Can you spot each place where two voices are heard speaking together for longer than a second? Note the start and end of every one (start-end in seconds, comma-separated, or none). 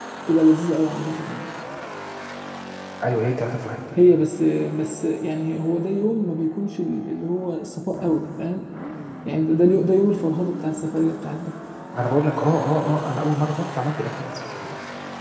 none